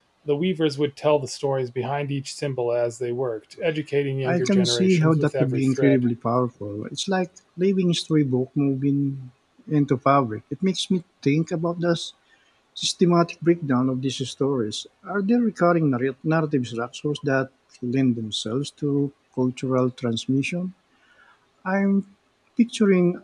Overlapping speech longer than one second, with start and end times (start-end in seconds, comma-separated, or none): 4.2-6.0